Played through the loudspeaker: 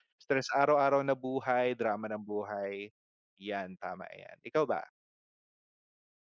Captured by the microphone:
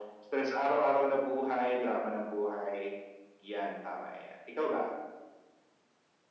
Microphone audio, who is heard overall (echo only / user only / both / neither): echo only